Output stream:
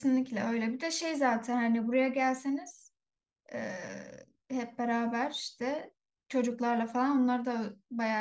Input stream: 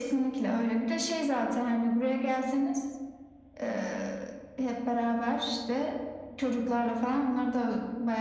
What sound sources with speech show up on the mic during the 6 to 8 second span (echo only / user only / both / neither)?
echo only